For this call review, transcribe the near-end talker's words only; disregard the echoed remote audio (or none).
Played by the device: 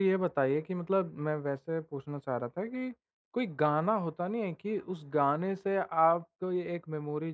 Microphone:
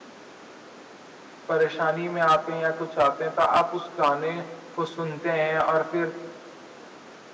परेशानी में आते हैं या कुछ आते हैं तो आप उस गाने को सुनते हैं और फिर